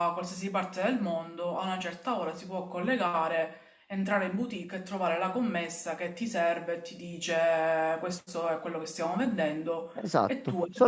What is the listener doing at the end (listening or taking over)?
taking over